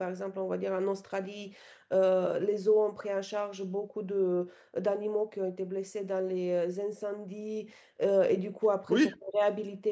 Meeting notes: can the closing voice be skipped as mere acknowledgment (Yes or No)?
Yes